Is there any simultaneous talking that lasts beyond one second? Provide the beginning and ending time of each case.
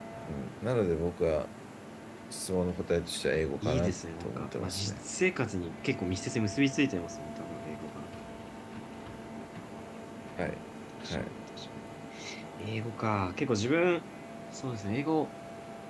3.6-5.0

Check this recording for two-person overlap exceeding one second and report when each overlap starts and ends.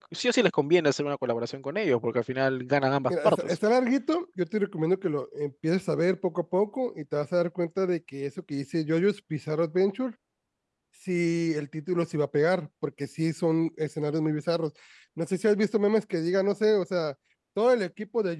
none

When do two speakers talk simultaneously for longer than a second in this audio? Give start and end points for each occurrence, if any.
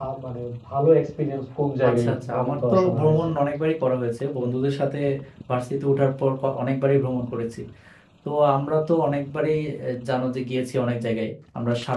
1.9-3.3

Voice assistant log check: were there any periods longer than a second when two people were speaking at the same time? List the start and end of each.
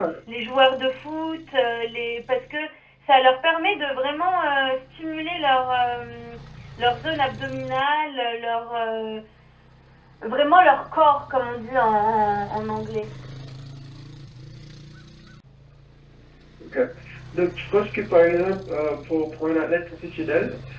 none

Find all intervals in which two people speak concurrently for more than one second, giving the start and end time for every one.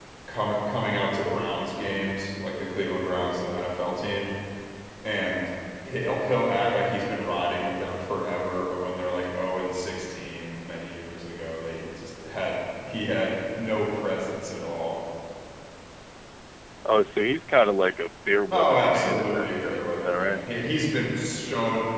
18.5-20.4

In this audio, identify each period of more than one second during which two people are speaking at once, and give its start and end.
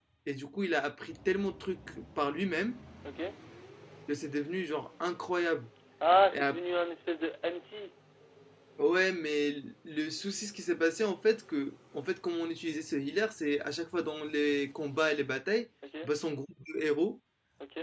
none

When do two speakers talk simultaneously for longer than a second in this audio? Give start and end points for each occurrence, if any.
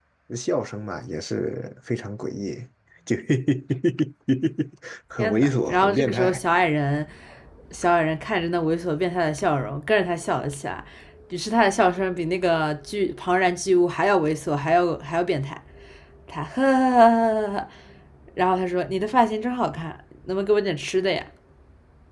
5.2-6.4

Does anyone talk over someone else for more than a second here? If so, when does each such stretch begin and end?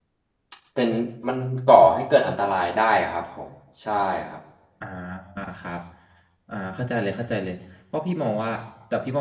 none

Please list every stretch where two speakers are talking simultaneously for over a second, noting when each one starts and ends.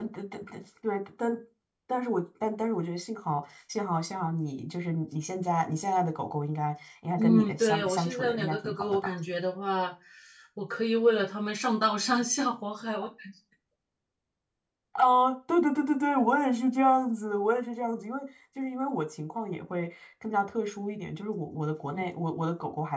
7.2-9.1

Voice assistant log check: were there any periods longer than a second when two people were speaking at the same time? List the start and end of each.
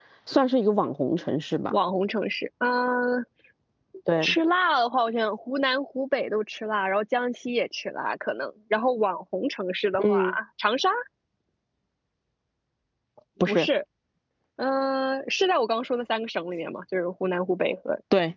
none

